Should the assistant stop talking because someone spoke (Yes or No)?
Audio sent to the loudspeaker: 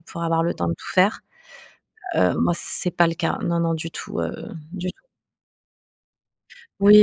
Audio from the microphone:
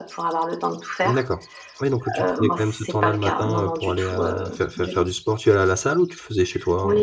Yes